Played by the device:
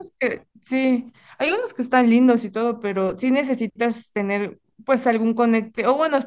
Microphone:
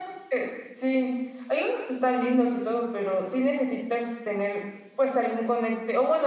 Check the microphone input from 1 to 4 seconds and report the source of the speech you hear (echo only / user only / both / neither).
echo only